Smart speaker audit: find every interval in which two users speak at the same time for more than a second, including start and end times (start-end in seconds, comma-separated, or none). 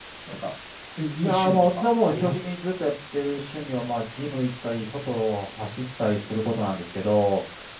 1.2-2.5